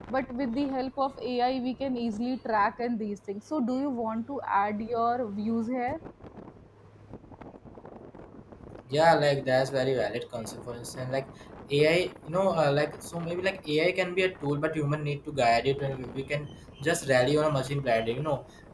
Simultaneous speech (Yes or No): No